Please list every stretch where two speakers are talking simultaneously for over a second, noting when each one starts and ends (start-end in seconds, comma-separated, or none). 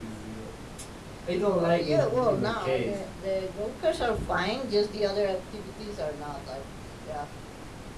1.6-2.9